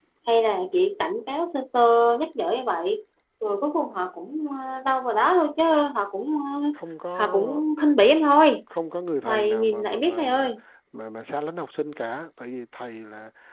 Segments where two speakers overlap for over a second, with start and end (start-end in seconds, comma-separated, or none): 9.2-10.5